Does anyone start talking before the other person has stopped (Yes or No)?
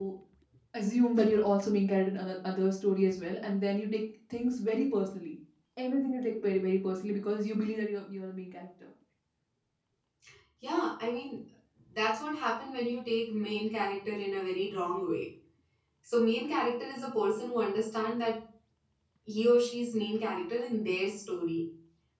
No